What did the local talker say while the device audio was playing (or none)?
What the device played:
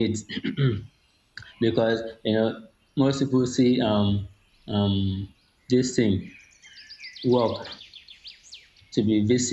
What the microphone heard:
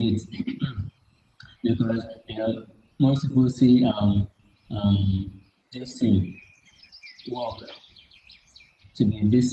none